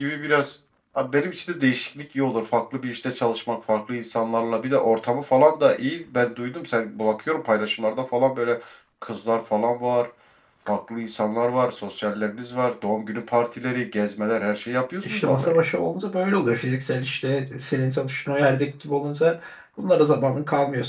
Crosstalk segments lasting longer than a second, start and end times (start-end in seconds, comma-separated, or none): none